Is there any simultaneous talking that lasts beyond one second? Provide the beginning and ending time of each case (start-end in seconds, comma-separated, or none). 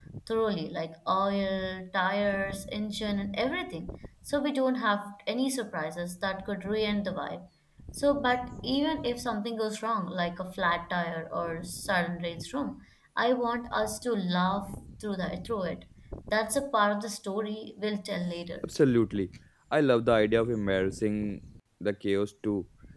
none